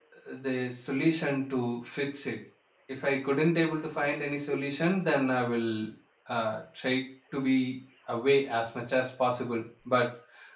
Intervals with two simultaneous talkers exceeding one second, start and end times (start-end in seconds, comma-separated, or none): none